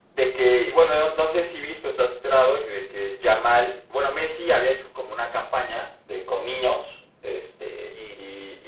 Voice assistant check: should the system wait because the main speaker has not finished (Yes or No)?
Yes